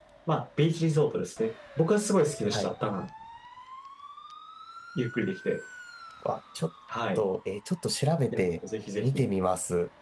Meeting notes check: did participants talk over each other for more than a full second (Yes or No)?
No